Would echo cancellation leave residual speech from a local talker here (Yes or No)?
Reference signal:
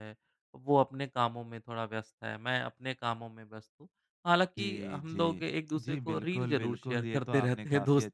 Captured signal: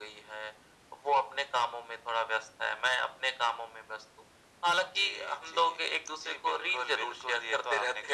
No